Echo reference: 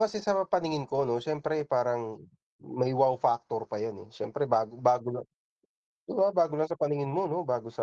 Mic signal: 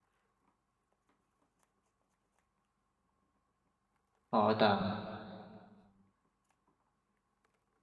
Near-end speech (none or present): present